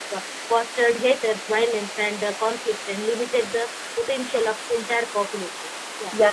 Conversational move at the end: taking over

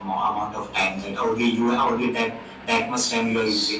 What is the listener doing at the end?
taking over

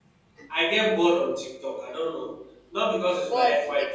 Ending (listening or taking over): listening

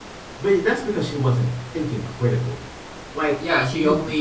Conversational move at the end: taking over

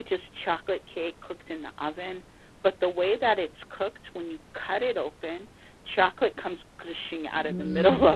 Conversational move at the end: taking over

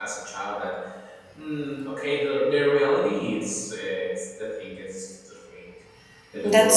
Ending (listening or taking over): listening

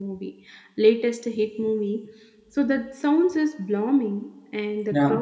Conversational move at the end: listening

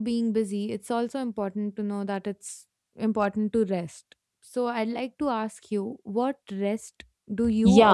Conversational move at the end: taking over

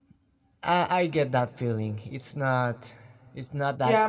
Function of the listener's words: taking over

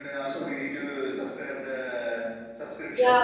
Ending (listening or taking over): taking over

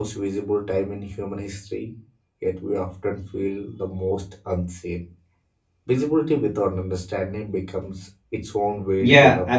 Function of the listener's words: taking over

